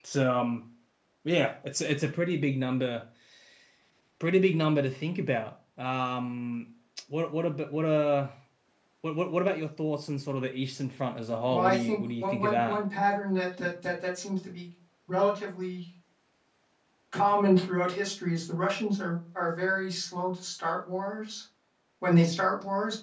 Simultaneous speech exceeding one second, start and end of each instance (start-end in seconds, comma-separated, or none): 11.4-12.8